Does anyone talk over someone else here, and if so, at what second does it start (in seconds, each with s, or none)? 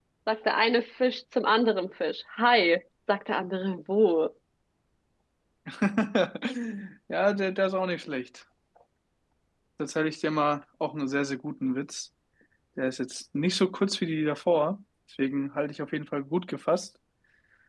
none